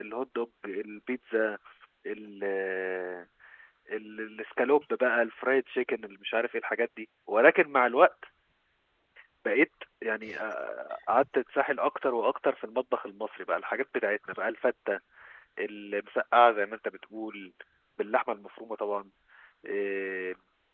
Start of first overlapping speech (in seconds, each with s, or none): none